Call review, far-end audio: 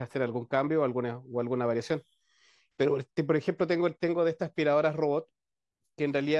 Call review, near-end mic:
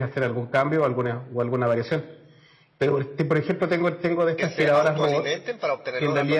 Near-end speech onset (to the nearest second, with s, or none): 4 s